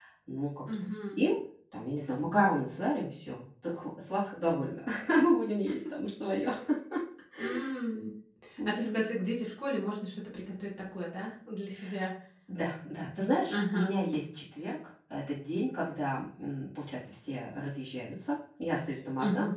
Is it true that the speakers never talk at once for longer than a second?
Yes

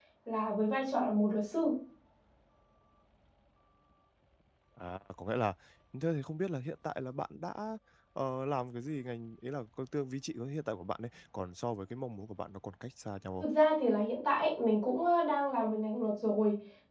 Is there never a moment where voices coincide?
Yes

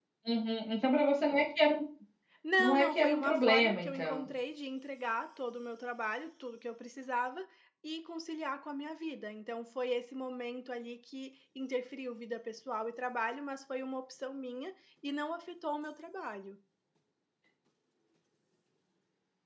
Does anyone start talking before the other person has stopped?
Yes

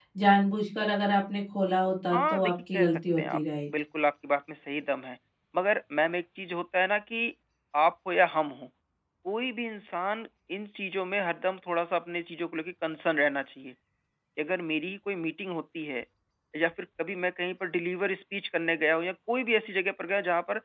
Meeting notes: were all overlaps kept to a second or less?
No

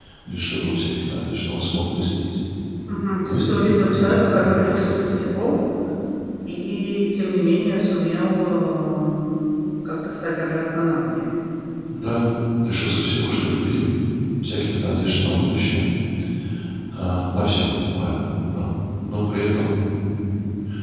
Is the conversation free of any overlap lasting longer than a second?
No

